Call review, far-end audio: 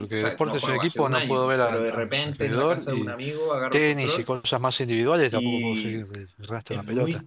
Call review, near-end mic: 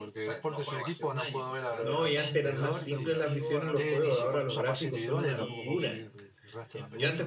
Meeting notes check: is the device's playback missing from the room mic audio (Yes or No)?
No